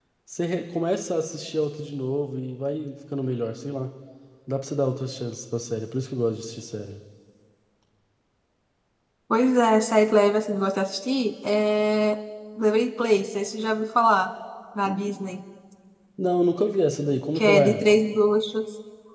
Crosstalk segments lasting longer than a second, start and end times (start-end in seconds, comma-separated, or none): none